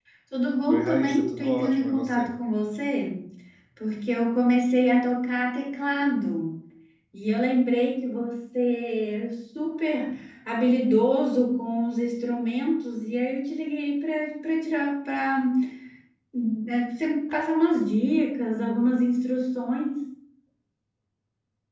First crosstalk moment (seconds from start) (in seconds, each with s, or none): 0.7 s